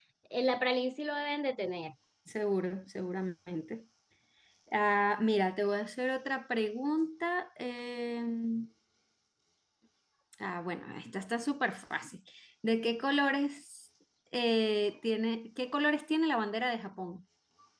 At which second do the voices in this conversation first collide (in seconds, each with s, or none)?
none